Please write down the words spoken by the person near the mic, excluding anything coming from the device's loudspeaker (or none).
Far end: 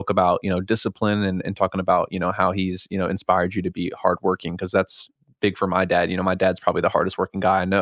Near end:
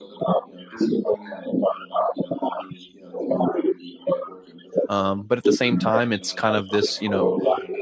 um, but at the same time it's kind of this you know